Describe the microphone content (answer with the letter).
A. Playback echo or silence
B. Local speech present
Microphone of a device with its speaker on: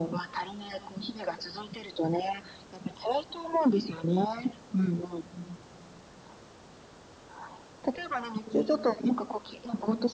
A